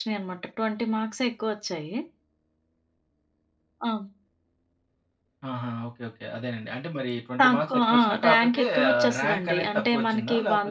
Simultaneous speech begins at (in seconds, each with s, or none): 7.4 s